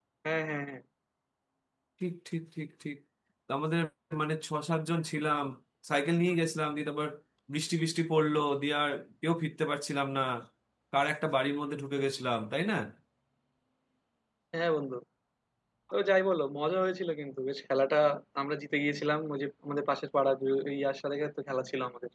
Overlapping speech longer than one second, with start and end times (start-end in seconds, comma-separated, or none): none